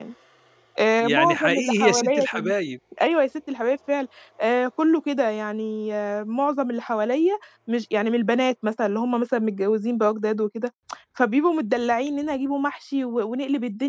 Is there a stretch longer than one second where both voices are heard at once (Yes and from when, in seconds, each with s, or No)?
Yes, from 1.0 s